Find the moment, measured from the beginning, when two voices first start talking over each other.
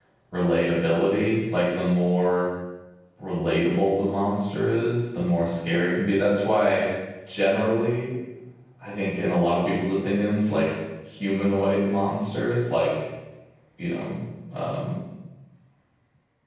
none

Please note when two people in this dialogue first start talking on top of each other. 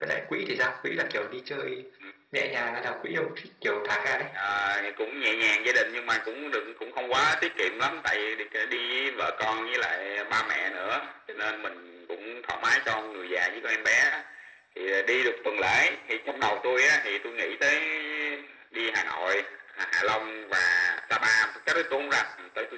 none

